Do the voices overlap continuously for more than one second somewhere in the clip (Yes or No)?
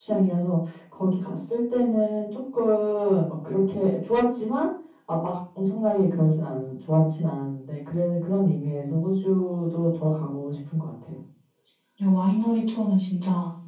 No